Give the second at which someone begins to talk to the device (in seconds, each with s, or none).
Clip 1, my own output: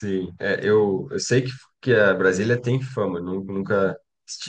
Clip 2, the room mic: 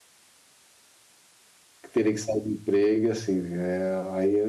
1.8 s